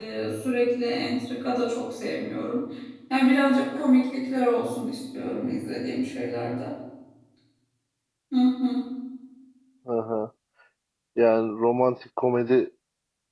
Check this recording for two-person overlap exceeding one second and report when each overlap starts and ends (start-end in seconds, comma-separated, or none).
none